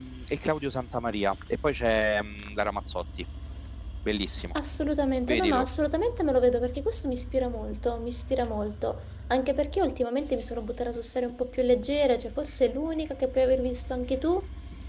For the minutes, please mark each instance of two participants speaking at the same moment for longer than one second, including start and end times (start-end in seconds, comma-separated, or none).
none